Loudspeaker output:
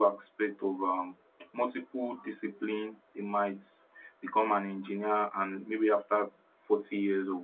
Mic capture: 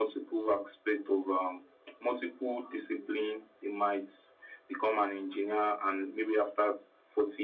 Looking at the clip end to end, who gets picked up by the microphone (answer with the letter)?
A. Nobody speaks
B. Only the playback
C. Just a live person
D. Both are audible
B